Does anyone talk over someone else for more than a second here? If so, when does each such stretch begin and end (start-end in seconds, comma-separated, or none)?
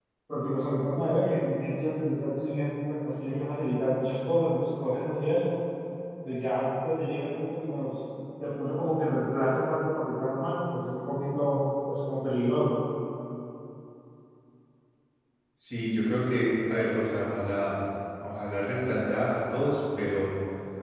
none